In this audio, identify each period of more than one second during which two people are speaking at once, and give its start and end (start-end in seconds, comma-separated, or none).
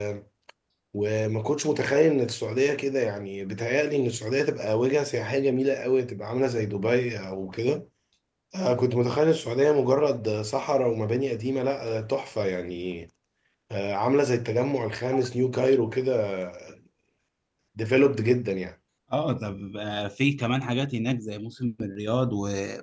none